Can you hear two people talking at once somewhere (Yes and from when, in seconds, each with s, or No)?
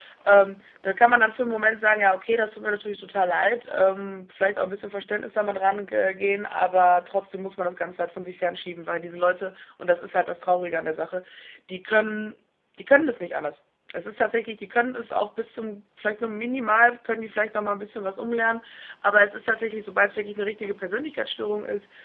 No